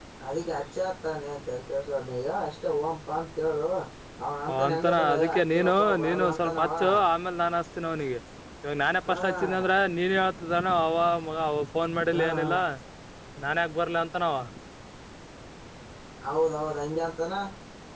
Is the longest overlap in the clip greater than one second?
Yes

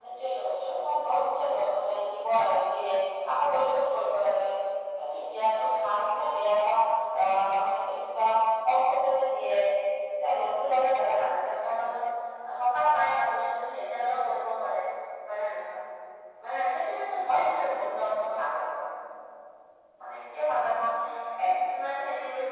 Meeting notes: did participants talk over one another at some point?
No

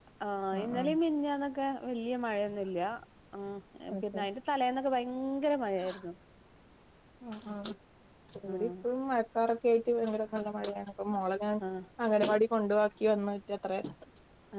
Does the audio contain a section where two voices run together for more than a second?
No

